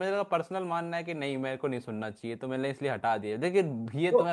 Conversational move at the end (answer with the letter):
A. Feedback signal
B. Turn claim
A